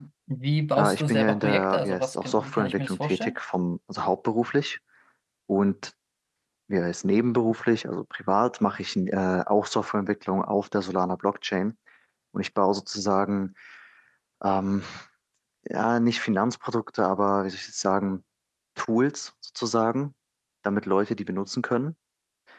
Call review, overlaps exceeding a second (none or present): present